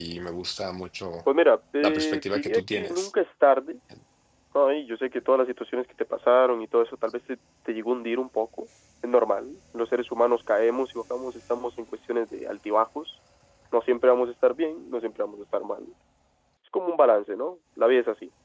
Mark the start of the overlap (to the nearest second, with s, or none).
2 s